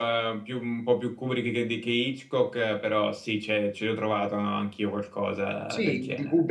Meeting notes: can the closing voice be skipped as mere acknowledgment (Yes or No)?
No